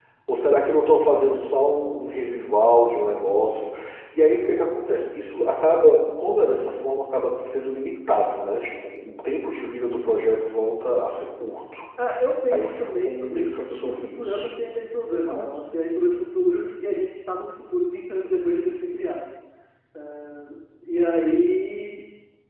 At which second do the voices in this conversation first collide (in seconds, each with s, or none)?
12.5 s